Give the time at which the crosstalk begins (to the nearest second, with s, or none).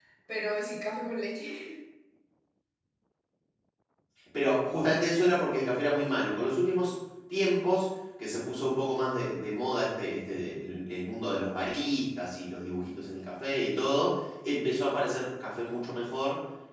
none